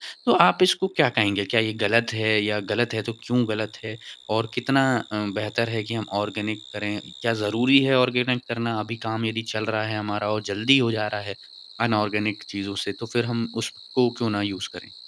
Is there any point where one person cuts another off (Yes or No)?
No